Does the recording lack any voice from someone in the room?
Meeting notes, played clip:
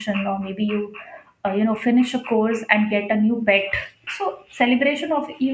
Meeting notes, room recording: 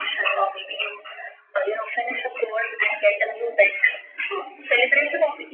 Yes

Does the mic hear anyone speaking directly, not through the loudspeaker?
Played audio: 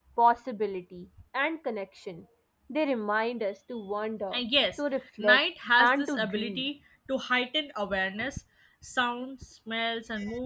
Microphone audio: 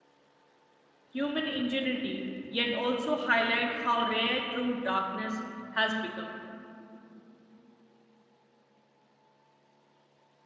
Yes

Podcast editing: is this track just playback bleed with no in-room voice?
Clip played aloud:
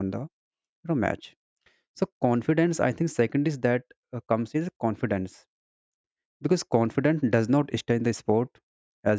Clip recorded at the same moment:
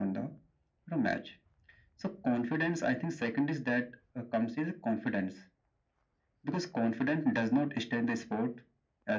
Yes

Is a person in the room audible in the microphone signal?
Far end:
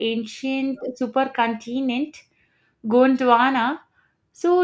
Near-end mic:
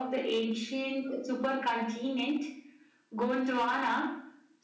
No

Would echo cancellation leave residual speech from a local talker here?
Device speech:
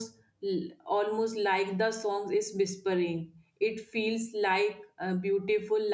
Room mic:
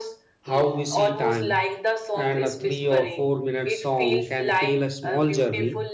Yes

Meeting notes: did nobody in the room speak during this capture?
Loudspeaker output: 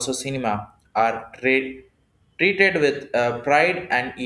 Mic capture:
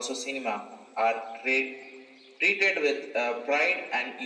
Yes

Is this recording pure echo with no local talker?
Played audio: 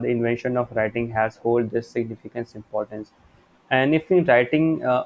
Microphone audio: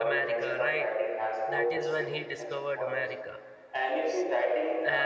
No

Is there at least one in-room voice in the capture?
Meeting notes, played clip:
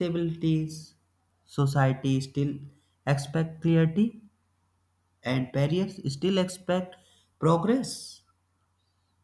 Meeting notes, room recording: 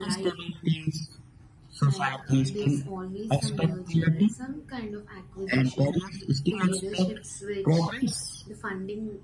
Yes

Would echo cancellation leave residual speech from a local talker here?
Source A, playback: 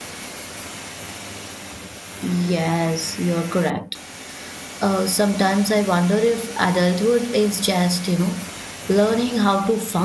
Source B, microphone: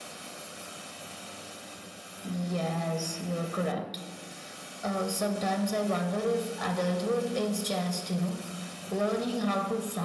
No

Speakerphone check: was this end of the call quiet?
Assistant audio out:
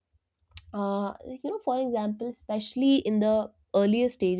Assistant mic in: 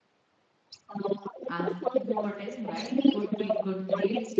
No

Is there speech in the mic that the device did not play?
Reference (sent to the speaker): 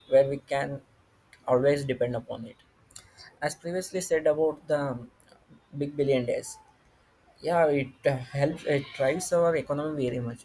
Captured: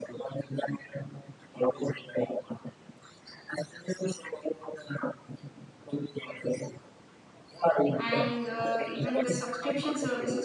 Yes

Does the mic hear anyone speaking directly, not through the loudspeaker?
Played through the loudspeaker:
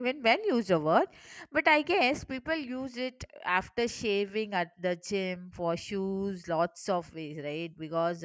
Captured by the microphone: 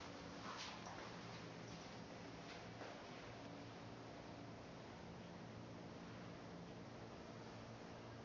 No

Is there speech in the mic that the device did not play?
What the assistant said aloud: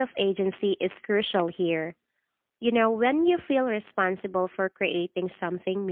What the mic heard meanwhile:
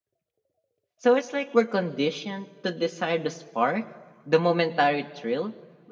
Yes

